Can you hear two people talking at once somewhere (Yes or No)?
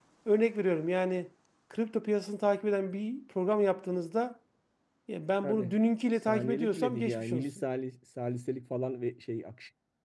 Yes